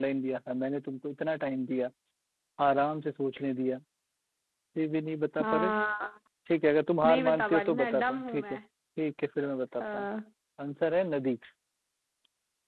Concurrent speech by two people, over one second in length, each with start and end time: 7.0-8.6

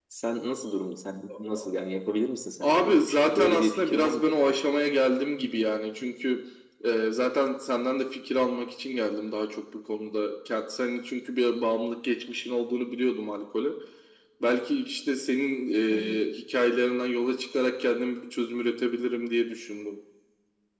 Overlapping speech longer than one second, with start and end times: 2.6-4.5

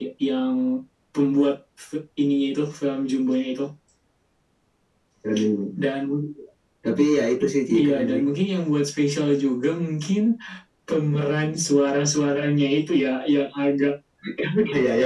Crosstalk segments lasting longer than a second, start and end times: none

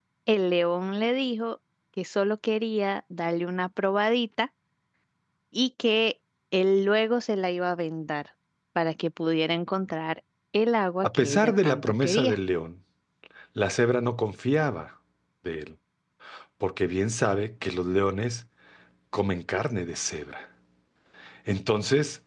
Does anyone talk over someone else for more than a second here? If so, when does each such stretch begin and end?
11.0-12.4

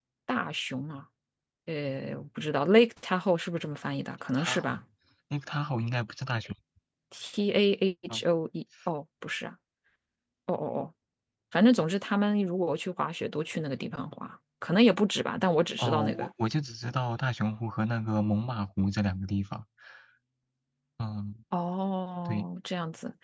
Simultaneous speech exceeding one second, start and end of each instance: none

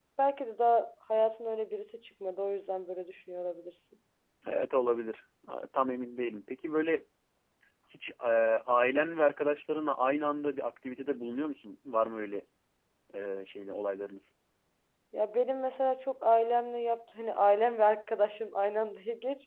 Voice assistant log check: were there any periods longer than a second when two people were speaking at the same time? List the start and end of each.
none

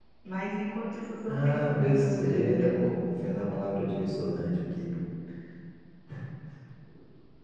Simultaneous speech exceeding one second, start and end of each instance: 1.3-2.9

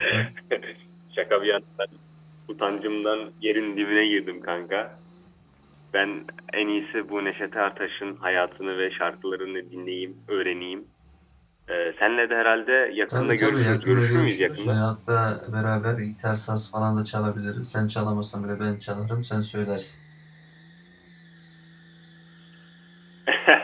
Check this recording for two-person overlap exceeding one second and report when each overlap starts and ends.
13.1-14.8

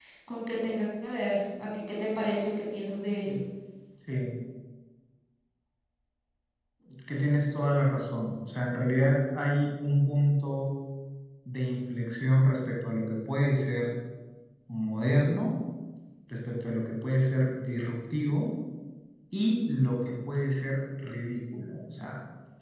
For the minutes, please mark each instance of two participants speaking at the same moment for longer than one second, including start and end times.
none

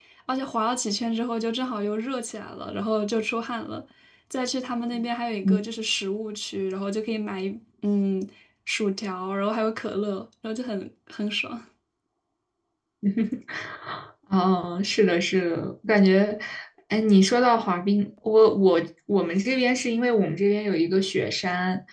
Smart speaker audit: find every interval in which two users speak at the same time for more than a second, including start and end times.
none

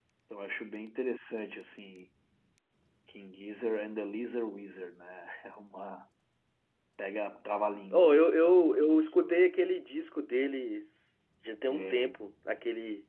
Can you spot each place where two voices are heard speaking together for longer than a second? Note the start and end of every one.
7.9-9.4

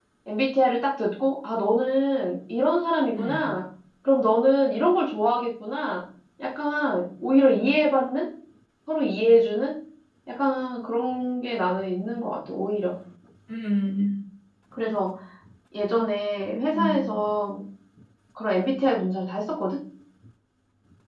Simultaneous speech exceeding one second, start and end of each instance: none

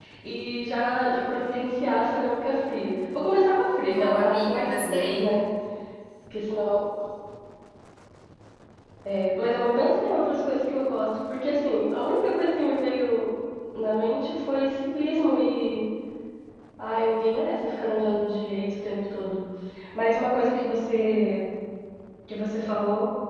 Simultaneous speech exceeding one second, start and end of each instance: 3.8-5.3

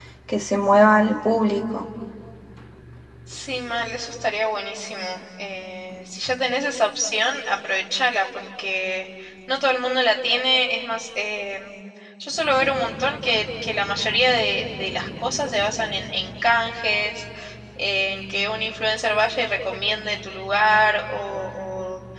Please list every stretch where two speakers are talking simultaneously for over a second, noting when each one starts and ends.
none

